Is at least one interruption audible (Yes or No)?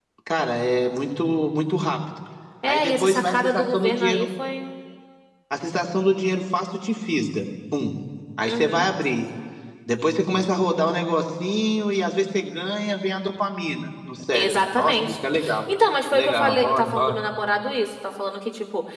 Yes